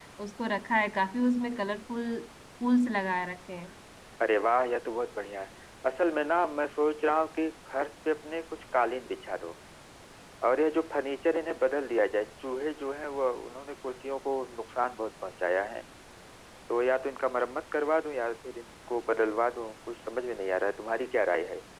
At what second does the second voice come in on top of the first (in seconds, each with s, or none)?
none